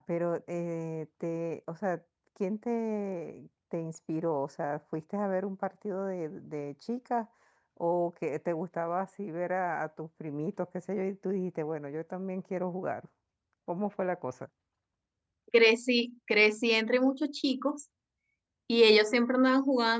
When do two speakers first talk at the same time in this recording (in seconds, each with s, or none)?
none